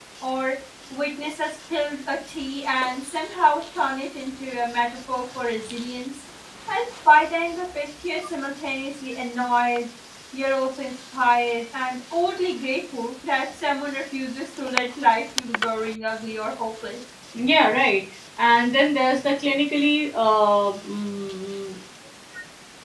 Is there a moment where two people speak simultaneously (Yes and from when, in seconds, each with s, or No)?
No